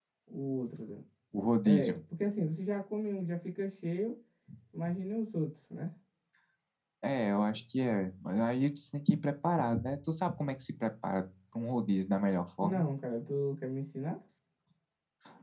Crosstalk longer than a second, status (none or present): none